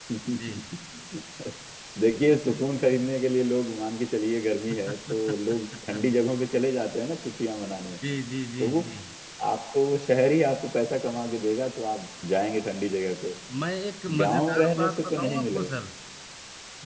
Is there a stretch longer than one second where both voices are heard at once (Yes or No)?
Yes